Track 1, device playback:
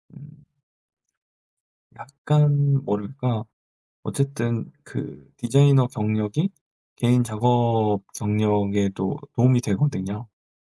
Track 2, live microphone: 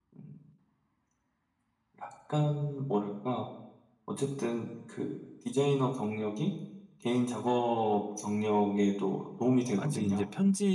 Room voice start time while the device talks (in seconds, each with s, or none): 9.8 s